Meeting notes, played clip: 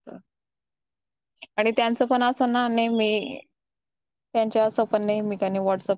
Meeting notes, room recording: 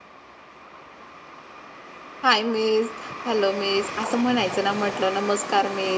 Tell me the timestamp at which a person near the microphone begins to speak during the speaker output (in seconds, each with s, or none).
2.2 s